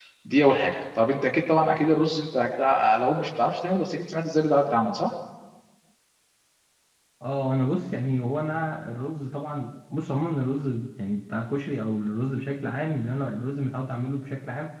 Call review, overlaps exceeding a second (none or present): none